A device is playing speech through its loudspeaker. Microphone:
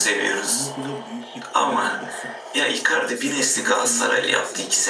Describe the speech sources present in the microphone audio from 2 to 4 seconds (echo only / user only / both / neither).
both